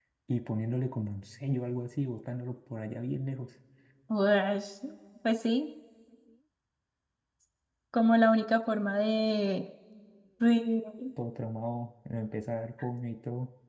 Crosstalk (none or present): none